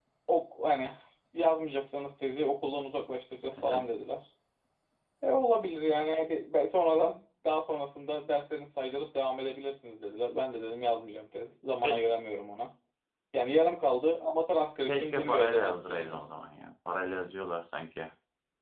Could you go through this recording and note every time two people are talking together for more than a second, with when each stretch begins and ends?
14.9-16.2

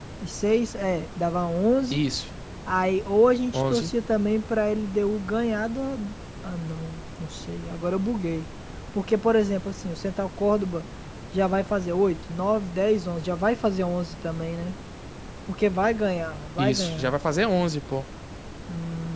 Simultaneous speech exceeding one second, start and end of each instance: none

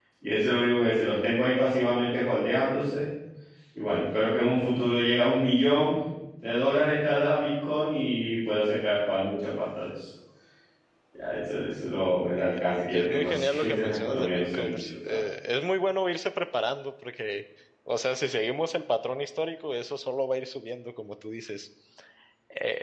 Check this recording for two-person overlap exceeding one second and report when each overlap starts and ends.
12.9-15.2

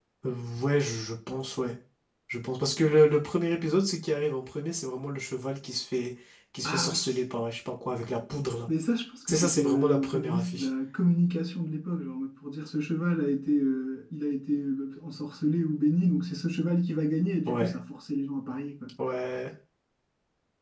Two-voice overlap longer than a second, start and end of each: 9.3-10.7

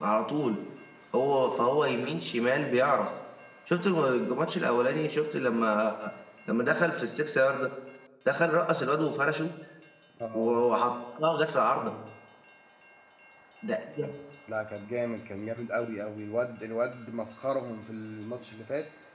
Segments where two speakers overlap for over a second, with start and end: none

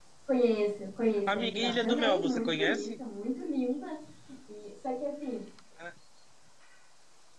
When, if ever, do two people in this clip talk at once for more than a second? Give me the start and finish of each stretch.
1.3-3.0

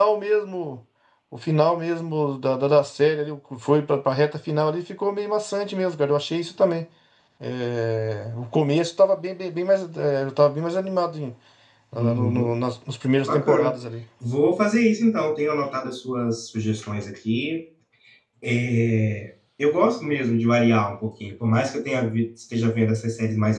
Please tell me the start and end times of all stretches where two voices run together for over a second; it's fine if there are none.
none

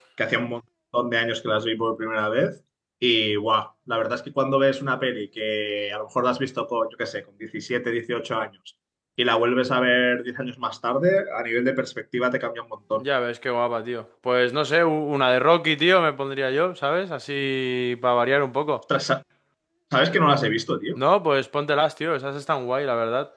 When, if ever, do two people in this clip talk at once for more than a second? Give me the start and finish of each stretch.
none

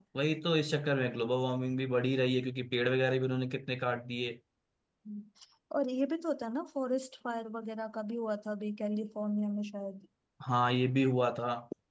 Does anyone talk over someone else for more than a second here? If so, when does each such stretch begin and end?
none

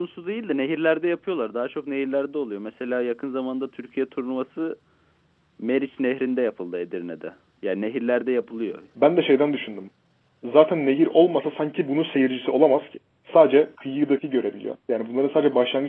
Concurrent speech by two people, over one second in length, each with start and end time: none

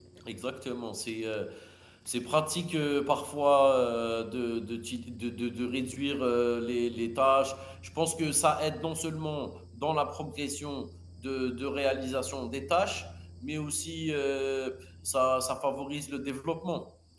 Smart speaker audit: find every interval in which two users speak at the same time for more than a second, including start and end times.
none

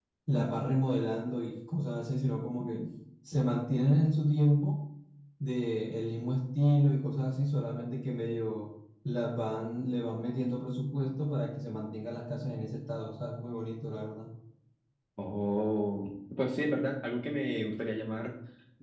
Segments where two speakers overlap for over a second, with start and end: none

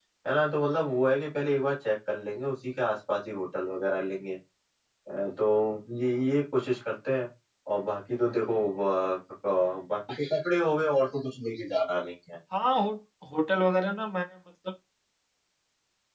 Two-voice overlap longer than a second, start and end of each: none

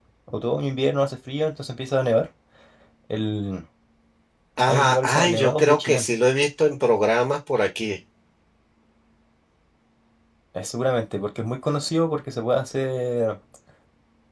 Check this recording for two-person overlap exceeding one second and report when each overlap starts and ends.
4.7-6.1

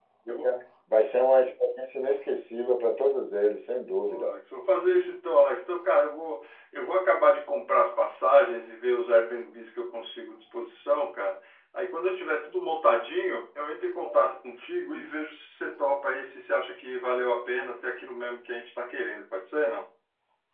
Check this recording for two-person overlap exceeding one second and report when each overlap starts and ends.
none

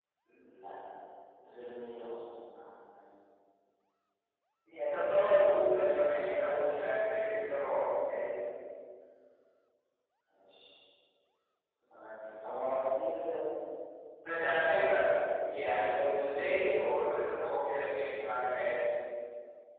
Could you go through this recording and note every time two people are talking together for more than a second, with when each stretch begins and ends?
none

